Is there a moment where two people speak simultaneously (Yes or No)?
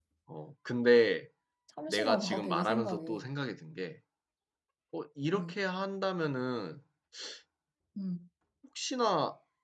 Yes